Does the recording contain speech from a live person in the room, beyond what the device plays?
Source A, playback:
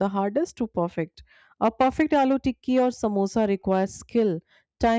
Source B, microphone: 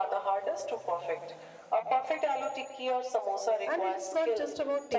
Yes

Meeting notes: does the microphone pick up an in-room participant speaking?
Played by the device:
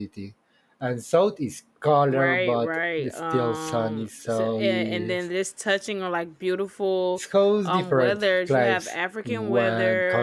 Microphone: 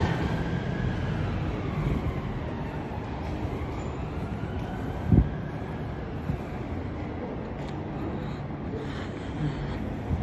No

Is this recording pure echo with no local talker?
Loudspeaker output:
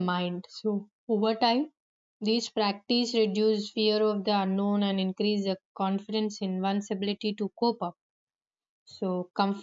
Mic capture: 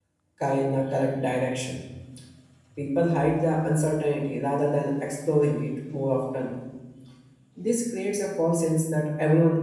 No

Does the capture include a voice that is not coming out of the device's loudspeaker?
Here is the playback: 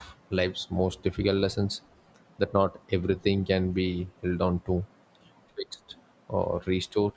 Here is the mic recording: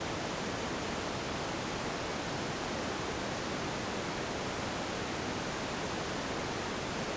No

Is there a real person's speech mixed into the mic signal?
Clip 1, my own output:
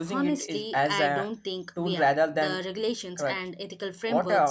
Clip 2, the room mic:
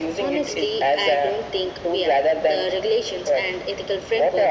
No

